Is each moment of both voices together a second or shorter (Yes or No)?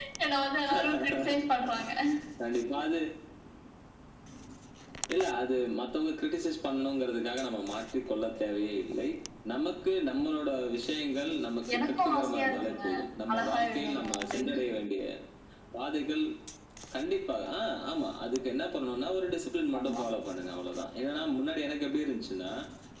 No